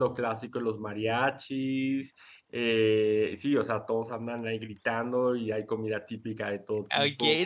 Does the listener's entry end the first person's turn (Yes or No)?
Yes